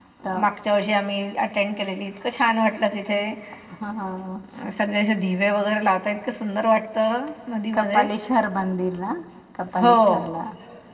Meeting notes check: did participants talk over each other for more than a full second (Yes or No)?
No